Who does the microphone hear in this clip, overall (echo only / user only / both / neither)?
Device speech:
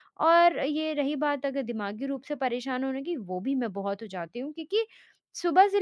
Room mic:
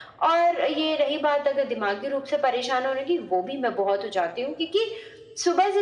echo only